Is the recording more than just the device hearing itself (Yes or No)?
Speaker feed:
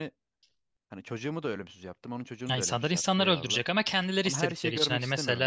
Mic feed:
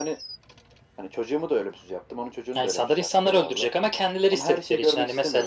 No